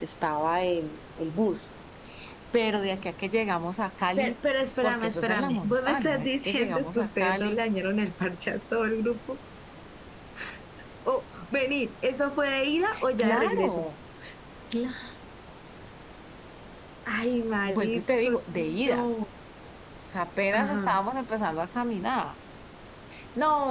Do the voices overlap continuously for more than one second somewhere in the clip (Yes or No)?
Yes